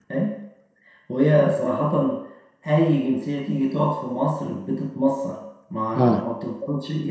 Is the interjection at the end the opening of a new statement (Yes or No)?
No